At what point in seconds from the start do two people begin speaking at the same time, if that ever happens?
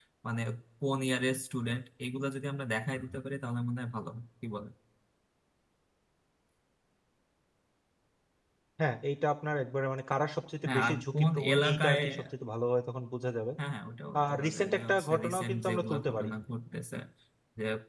10.7 s

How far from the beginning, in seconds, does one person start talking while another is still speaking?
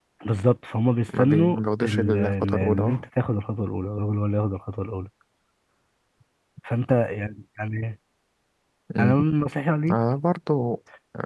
1.2 s

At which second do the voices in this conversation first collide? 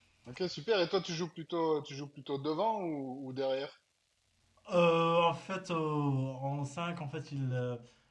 none

